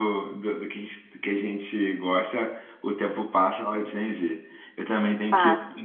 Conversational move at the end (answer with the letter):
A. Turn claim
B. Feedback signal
B